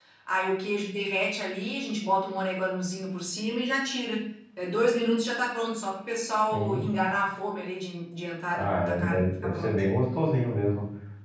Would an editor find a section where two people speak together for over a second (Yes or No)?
Yes